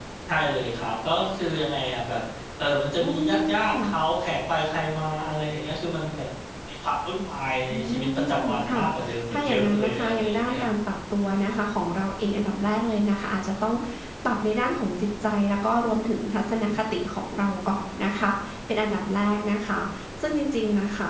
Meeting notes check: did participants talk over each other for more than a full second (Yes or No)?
Yes